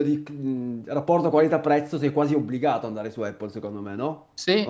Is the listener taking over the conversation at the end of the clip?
Yes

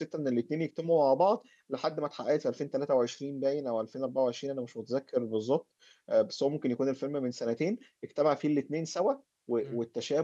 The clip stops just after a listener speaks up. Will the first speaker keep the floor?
Yes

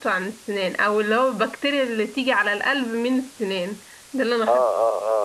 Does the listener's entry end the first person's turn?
Yes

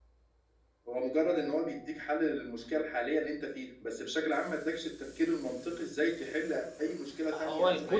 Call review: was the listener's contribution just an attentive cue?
No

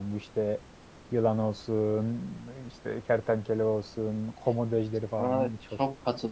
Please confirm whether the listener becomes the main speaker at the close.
Yes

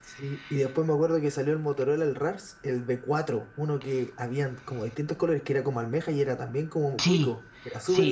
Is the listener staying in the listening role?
No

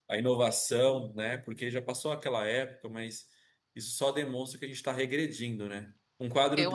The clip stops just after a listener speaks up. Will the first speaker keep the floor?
Yes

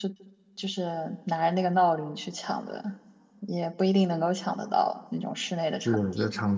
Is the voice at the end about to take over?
Yes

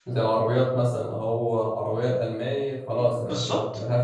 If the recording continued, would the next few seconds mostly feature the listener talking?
Yes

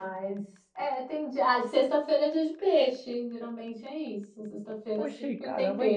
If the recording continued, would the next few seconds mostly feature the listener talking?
Yes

